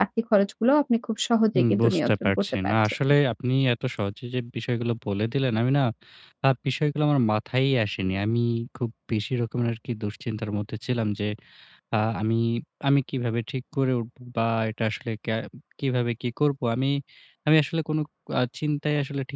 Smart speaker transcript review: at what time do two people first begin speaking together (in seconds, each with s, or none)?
1.5 s